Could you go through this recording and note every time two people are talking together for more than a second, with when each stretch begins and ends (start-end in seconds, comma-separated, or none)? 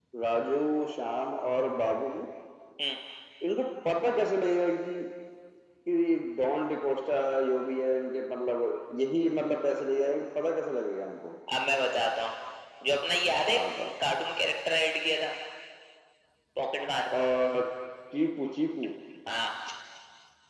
none